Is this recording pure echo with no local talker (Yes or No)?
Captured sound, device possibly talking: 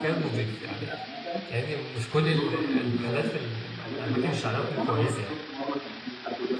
No